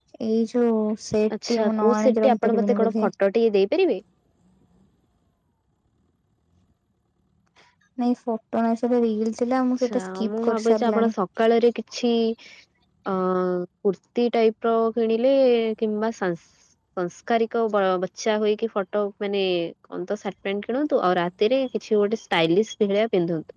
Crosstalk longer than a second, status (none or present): present